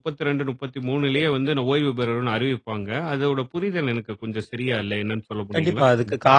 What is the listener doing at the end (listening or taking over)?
taking over